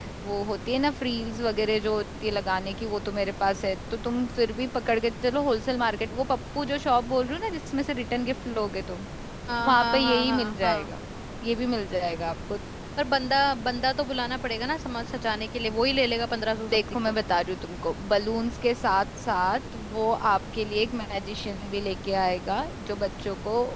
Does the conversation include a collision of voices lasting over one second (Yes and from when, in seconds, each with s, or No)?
Yes, from 9.6 s